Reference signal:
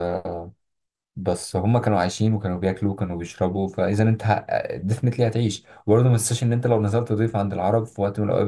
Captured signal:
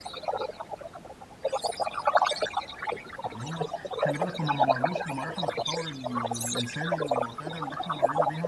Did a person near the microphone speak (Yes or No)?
Yes